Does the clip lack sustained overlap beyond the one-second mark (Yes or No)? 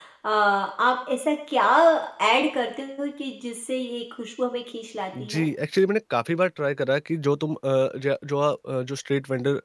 Yes